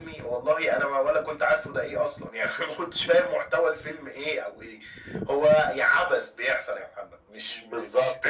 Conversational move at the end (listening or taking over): taking over